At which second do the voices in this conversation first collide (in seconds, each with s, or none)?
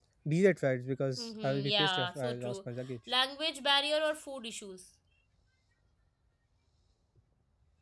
1.2 s